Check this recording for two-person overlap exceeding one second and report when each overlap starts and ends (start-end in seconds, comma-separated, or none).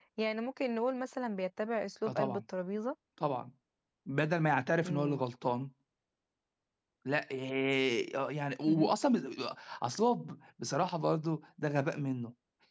none